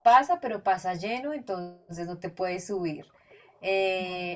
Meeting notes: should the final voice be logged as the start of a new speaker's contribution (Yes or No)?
No